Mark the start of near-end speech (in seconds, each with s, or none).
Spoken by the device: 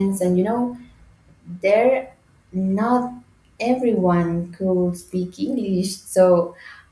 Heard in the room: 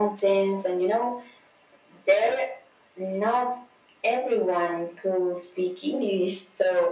none